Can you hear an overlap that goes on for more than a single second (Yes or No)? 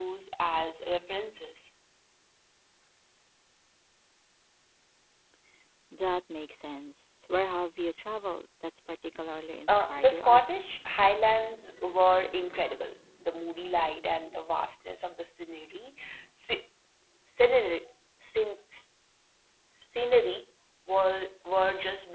Yes